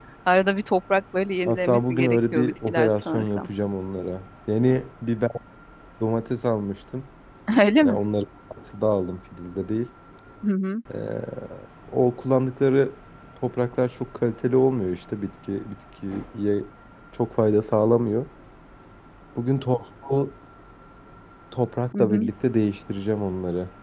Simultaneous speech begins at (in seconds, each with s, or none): 1.4 s